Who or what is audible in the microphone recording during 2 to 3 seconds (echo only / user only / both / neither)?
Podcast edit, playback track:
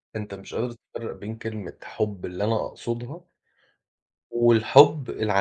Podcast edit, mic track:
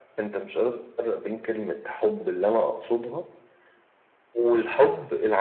echo only